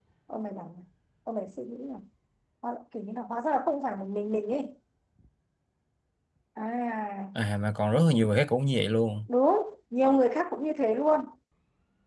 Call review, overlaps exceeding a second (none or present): none